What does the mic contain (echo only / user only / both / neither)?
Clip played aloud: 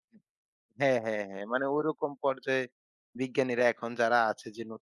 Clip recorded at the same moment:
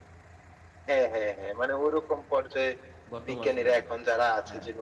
both